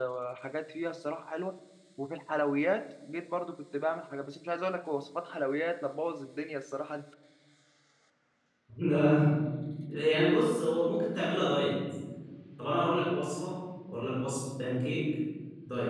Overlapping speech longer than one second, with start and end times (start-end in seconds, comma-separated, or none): none